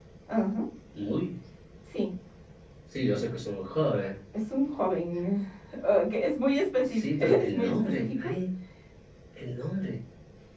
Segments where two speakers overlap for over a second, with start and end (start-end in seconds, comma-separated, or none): 6.8-8.3